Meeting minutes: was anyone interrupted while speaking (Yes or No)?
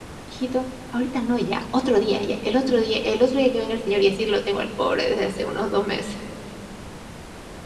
No